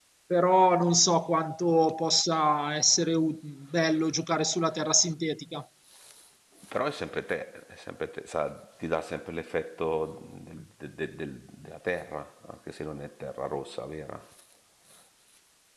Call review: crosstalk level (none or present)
none